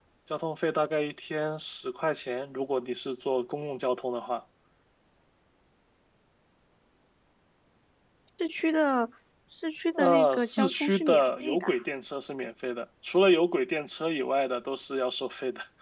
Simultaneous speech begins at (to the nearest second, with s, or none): 10 s